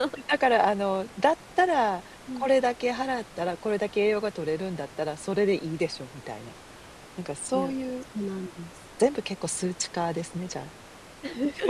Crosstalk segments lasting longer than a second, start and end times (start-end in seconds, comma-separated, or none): none